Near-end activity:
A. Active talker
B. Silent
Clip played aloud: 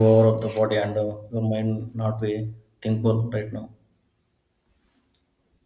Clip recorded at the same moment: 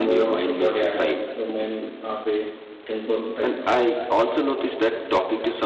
A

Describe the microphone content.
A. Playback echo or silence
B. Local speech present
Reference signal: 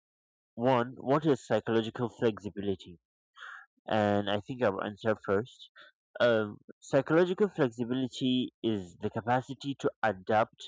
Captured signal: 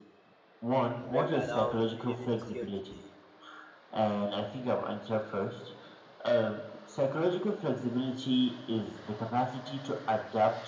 B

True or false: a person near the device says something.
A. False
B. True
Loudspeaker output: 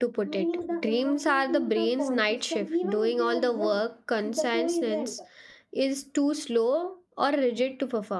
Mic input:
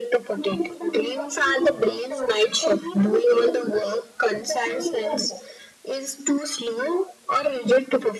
A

